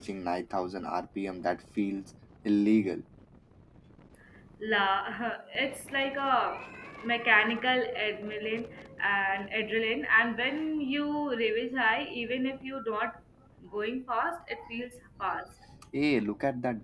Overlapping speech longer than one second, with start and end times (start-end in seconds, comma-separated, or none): none